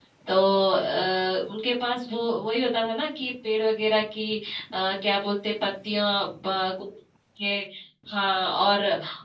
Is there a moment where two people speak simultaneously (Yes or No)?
No